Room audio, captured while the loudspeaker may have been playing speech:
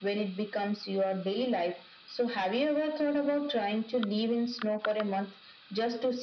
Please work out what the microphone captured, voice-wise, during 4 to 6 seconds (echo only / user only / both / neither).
echo only